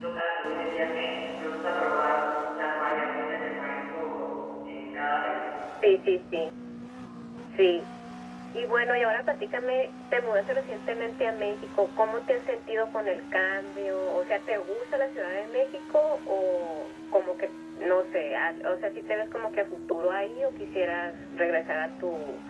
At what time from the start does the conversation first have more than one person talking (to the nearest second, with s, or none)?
none